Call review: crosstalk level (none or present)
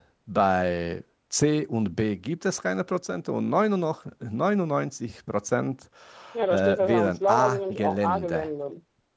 present